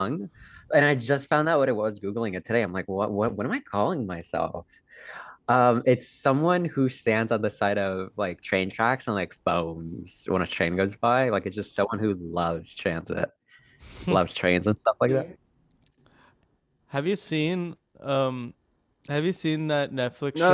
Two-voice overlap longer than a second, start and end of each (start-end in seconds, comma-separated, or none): none